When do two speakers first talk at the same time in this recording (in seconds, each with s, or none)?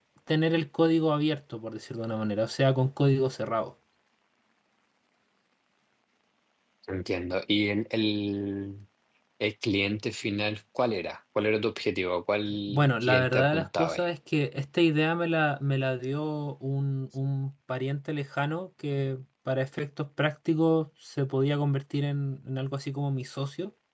12.5 s